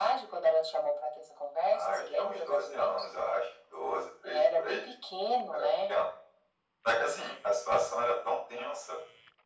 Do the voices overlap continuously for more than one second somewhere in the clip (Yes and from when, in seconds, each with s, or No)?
Yes, from 1.7 s